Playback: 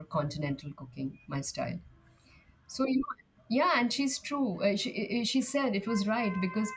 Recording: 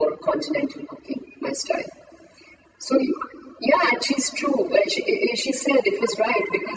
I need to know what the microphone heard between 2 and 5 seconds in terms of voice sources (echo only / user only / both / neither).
echo only